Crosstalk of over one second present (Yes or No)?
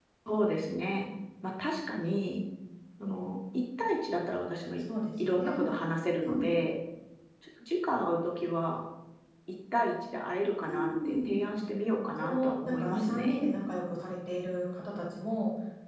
Yes